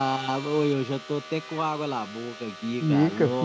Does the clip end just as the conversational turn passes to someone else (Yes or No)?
Yes